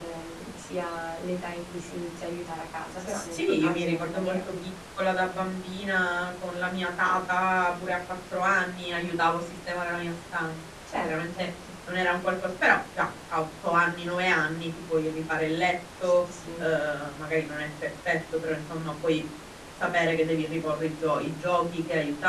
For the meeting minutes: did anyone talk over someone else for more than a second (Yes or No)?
Yes